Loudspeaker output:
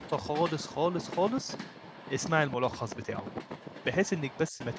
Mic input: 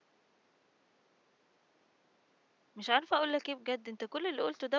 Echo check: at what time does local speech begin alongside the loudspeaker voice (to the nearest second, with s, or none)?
3 s